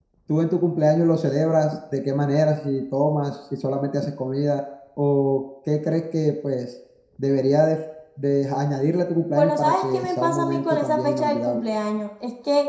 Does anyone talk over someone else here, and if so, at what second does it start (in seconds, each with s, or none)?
9.4 s